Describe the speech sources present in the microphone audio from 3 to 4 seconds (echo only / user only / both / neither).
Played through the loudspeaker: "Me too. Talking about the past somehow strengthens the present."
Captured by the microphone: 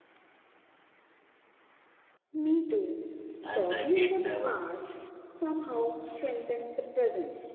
both